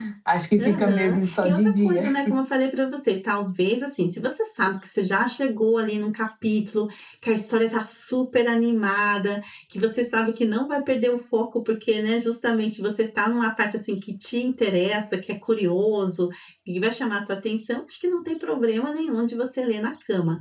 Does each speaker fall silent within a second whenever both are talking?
No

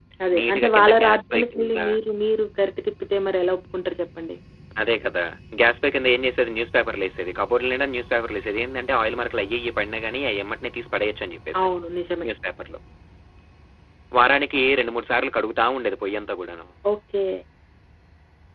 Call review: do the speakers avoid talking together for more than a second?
No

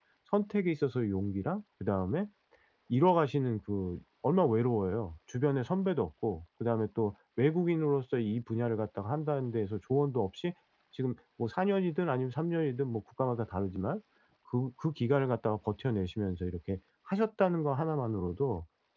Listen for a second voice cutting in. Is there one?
No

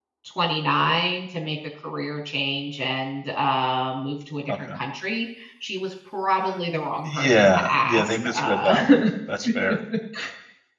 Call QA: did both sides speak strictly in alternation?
No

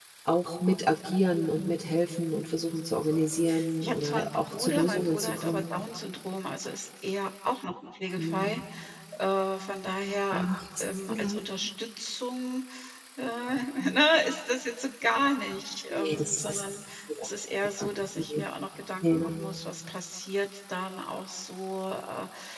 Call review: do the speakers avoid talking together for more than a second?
No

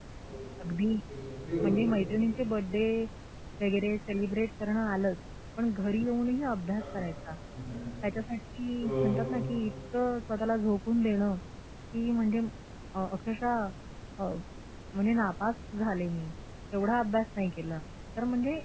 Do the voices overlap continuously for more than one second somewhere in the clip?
No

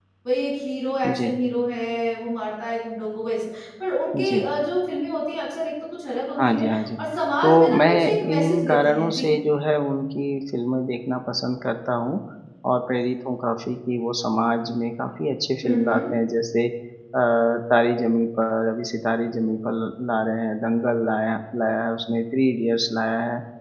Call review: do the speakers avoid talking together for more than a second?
No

